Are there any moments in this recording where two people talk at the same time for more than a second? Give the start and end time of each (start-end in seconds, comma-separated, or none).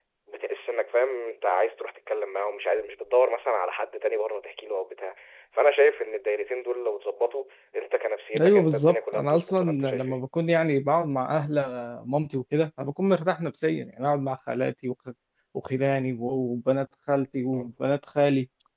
8.4-10.2